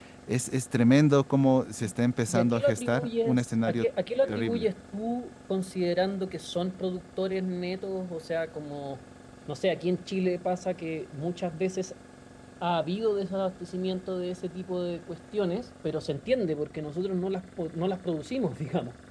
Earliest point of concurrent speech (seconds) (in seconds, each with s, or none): 2.3 s